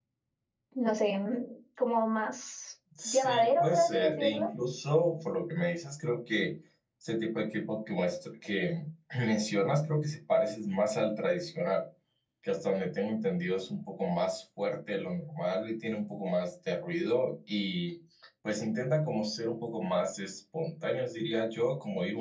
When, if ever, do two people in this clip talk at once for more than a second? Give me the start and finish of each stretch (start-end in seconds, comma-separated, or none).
3.0-4.5